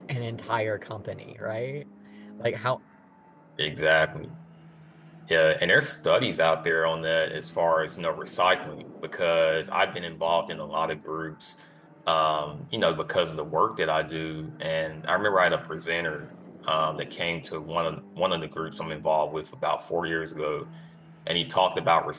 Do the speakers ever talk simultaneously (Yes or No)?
No